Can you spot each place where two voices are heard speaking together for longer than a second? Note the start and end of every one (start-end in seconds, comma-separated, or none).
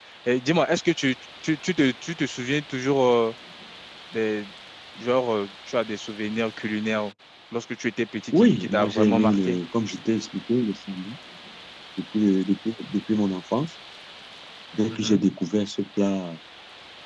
8.3-9.6